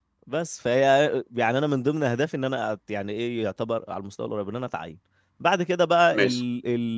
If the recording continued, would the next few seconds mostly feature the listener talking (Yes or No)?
No